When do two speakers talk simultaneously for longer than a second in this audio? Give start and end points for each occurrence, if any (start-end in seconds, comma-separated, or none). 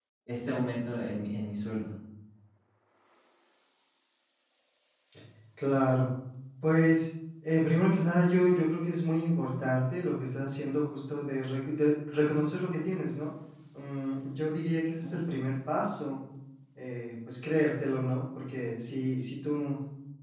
none